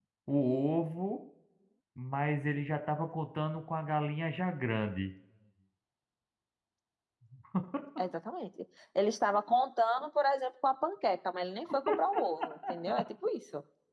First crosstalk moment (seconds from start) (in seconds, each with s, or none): none